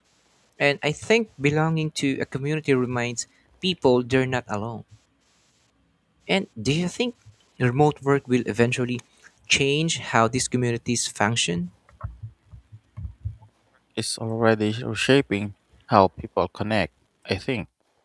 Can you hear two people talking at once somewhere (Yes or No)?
No